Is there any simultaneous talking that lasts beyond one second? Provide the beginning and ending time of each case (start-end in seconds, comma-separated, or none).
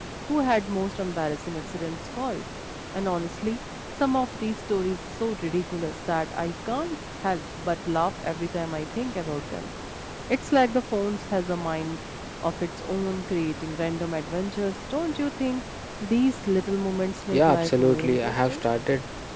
17.3-18.6